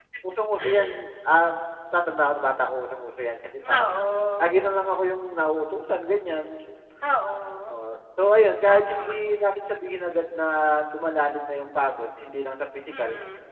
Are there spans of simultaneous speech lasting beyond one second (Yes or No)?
No